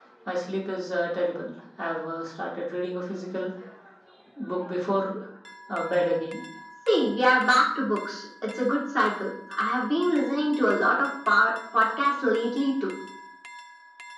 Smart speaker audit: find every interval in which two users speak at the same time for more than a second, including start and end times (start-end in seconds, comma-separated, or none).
none